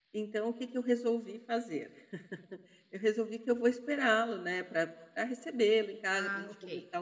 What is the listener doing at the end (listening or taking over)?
listening